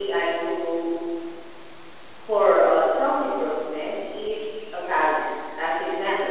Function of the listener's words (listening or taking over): listening